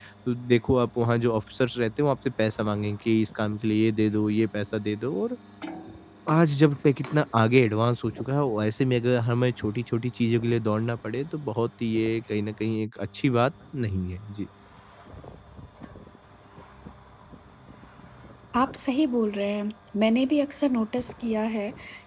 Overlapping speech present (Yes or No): No